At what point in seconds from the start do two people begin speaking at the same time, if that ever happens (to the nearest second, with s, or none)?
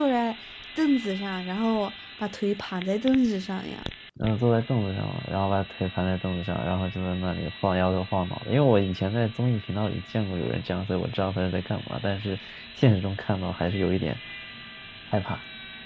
none